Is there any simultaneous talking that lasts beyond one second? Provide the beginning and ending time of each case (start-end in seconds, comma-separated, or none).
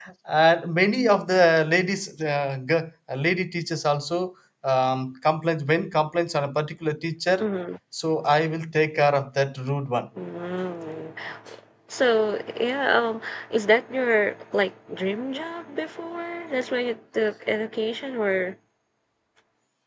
none